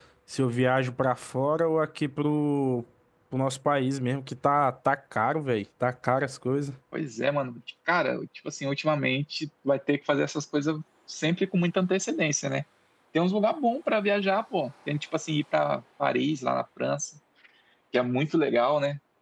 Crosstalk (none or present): none